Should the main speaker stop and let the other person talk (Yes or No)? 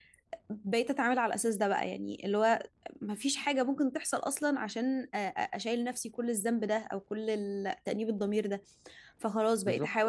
No